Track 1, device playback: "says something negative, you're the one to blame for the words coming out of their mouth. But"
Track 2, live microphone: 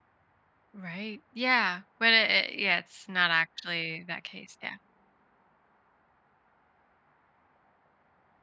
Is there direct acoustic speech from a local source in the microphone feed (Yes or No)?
Yes